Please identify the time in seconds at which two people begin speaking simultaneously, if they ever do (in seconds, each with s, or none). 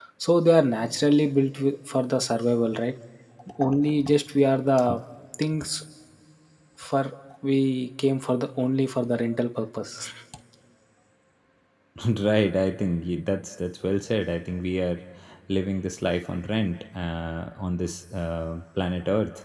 none